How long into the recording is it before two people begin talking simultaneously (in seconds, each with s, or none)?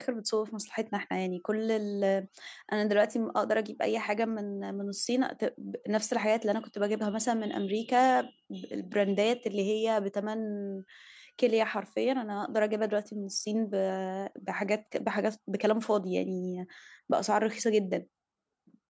none